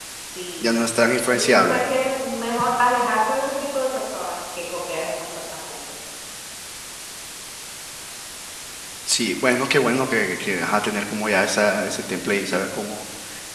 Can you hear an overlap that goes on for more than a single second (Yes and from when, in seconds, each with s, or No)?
No